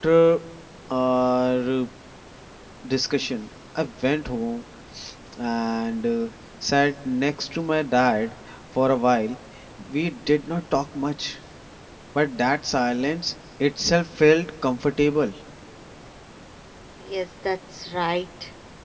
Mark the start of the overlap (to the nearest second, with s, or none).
none